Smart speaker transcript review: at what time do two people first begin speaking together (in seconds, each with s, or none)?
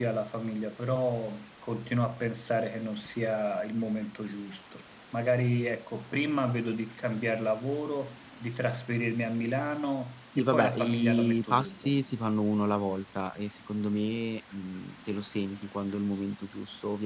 10.3 s